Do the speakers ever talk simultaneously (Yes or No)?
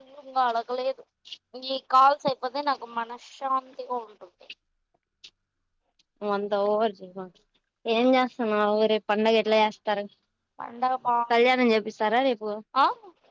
No